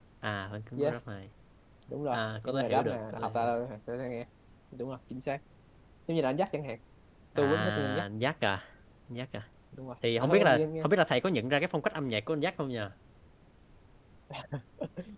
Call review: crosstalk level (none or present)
present